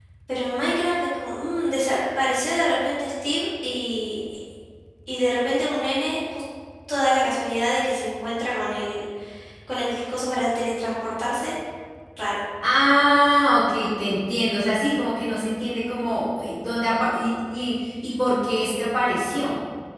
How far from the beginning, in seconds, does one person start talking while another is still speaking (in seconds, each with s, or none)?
none